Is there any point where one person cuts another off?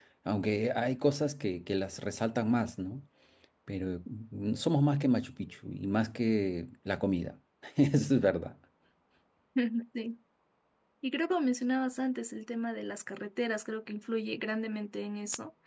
No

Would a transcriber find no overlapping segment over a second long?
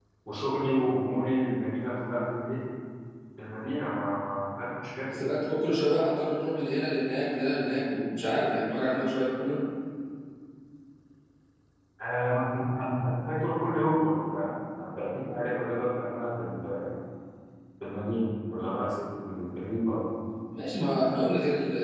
Yes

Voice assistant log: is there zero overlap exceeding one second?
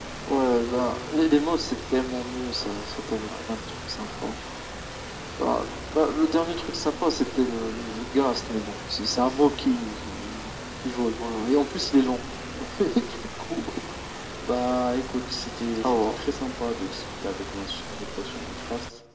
Yes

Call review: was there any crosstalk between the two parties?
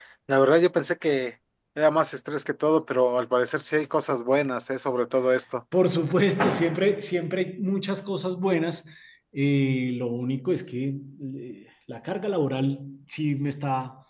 No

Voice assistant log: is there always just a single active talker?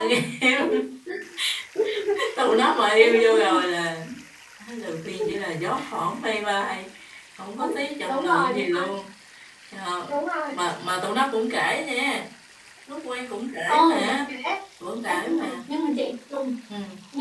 No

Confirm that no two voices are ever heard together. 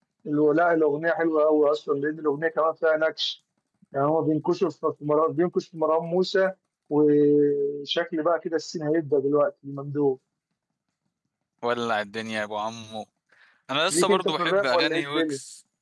No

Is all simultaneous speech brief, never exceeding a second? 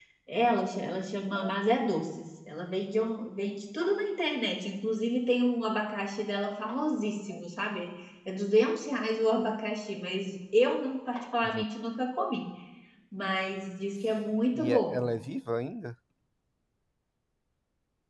Yes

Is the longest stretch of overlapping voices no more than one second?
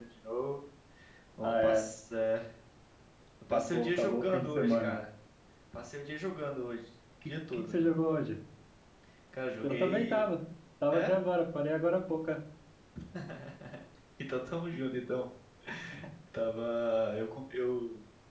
No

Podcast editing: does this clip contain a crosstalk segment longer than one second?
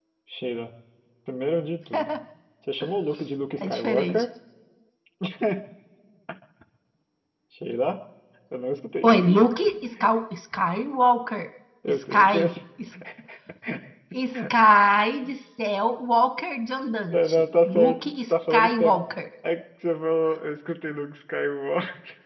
Yes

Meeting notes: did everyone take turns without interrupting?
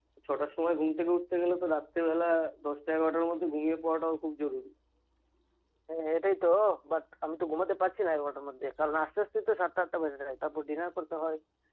Yes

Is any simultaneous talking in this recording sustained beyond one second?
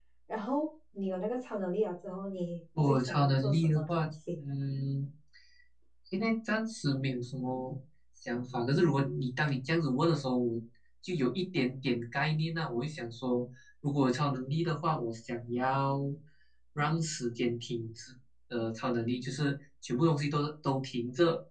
Yes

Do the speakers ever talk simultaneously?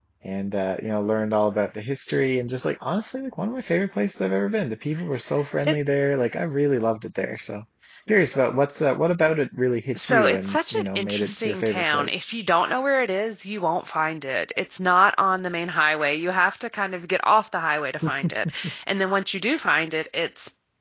Yes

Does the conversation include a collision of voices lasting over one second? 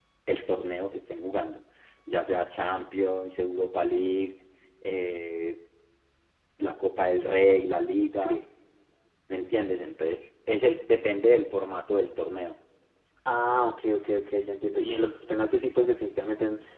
No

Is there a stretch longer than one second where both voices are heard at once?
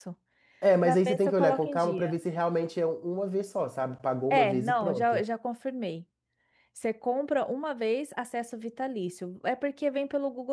Yes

